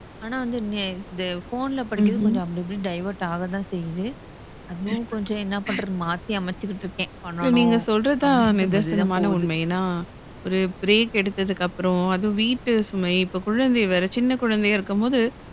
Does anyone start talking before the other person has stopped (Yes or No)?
Yes